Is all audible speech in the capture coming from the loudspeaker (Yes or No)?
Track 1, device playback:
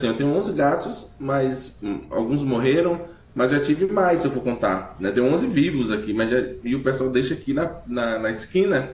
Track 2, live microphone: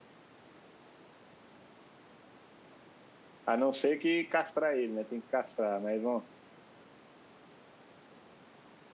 No